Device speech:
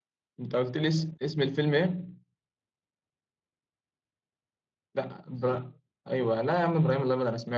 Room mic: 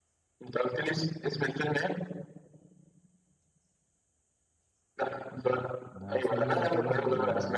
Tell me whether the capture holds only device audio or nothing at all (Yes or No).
No